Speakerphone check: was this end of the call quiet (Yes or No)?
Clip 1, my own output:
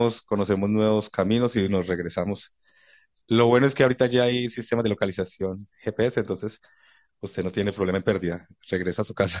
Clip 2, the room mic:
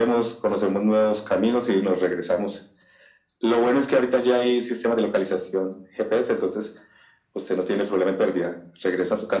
Yes